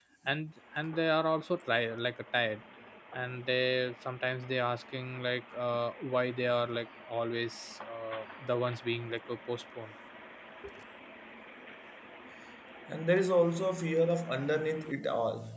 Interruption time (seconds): none

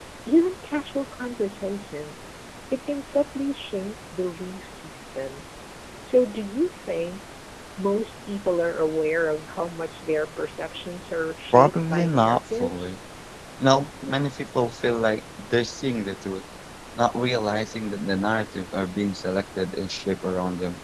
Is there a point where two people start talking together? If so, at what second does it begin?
11.5 s

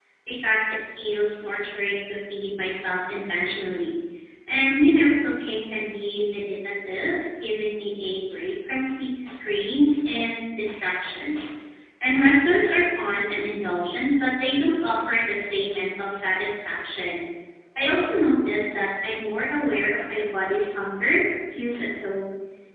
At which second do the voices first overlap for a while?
none

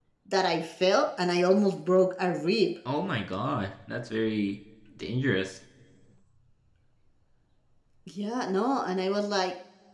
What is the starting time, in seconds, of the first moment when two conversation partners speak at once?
none

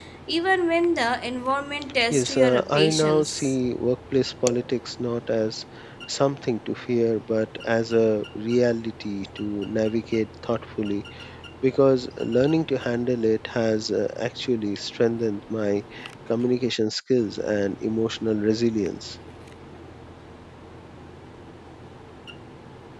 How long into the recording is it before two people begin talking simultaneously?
2.1 s

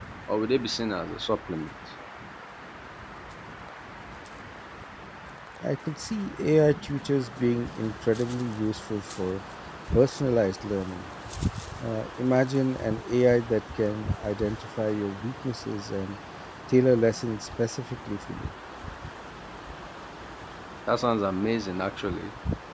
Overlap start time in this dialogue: none

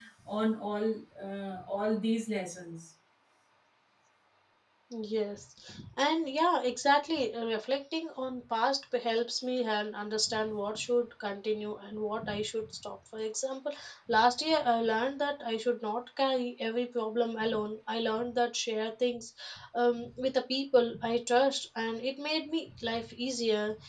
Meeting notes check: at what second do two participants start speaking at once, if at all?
none

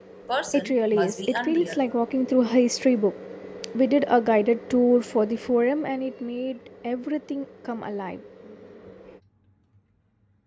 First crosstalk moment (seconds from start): 0.5 s

